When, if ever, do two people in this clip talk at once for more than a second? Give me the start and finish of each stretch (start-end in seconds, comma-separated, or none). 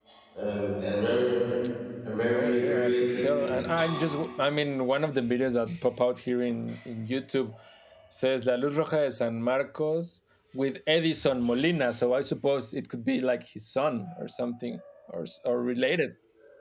2.2-3.5